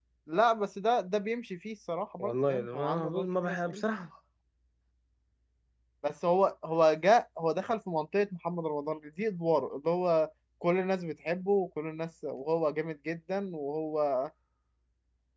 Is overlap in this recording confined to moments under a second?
No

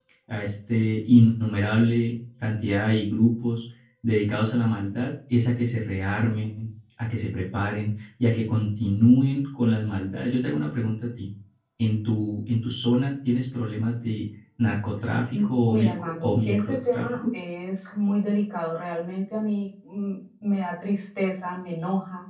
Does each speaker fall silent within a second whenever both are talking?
No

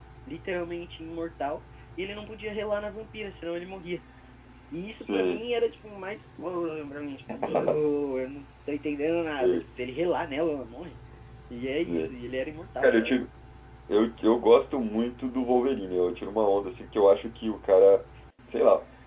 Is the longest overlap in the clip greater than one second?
No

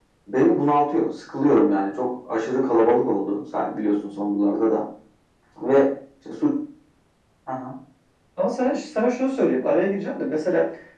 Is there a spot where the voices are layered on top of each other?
No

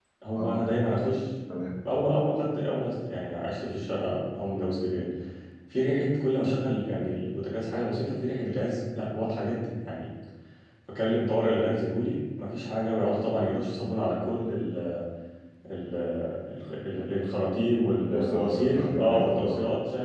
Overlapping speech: Yes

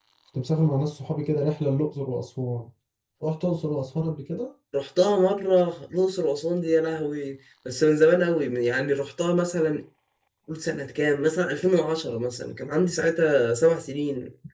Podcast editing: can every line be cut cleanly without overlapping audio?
Yes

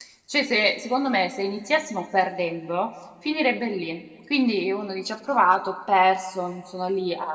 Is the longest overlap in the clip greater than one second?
No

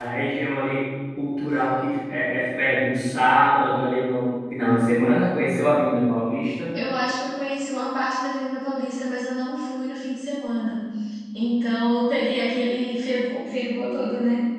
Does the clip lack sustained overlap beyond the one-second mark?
Yes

